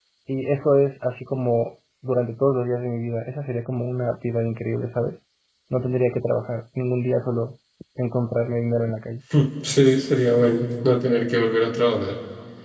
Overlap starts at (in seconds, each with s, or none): none